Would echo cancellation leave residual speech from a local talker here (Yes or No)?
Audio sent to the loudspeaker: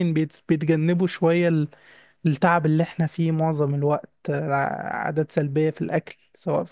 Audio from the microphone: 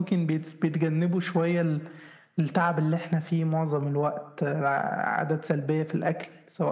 No